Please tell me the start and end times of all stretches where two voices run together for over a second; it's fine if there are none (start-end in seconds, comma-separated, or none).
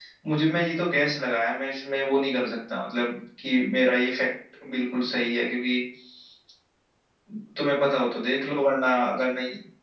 none